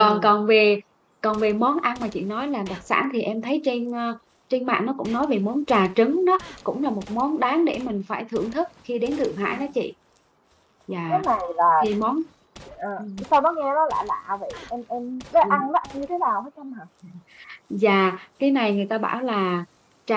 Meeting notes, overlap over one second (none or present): none